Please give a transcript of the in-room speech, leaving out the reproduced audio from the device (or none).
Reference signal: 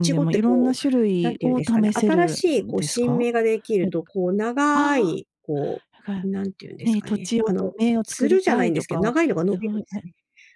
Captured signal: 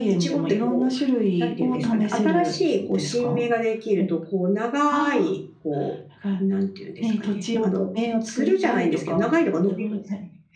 none